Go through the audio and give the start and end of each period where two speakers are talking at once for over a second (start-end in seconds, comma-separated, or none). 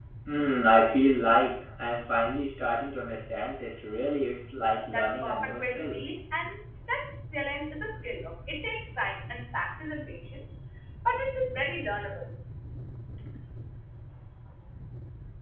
4.9-6.1